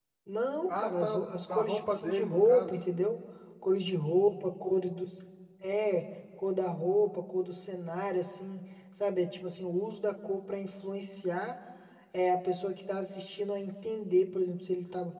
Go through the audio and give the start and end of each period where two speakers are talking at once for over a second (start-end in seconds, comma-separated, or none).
0.7-2.8